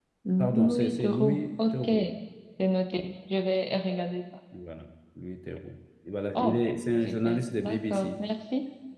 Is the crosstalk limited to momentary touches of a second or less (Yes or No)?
No